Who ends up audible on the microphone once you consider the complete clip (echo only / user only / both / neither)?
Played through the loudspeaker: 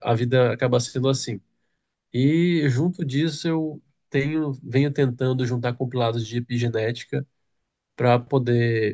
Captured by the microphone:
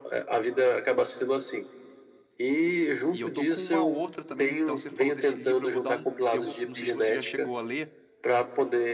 both